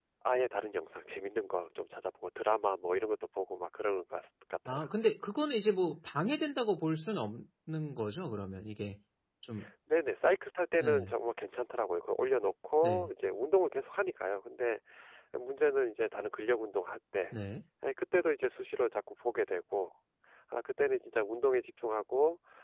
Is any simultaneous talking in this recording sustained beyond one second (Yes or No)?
No